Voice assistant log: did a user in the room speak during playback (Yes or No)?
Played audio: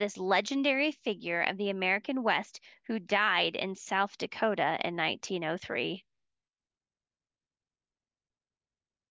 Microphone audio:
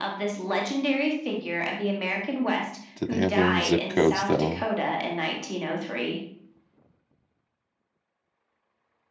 Yes